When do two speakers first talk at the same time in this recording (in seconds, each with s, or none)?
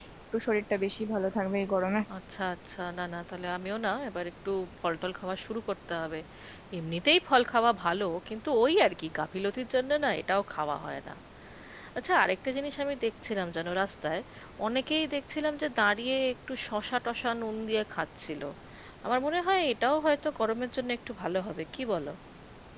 none